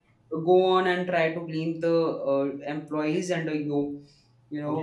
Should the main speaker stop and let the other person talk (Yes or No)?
Yes